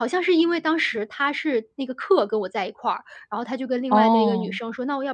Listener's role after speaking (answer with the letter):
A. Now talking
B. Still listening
B